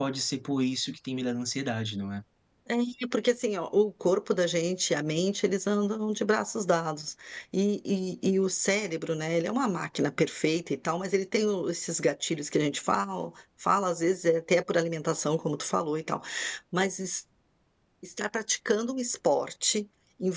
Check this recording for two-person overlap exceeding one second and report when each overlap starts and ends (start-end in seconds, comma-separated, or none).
none